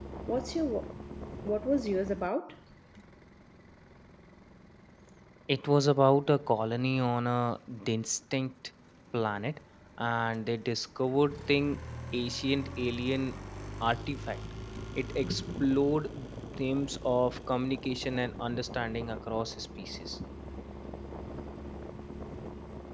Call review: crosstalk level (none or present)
none